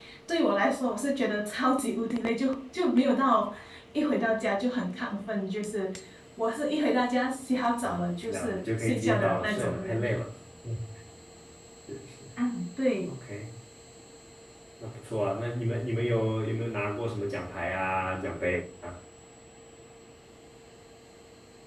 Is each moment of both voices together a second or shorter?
No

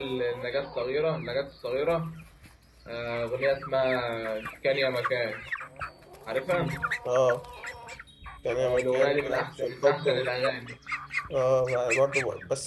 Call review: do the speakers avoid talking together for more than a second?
No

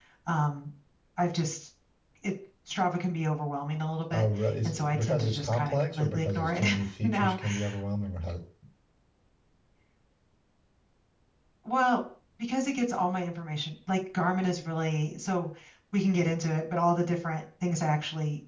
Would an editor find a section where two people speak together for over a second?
Yes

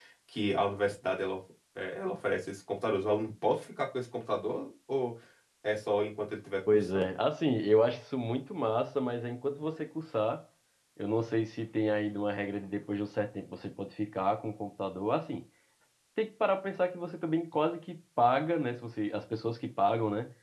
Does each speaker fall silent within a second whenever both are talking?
Yes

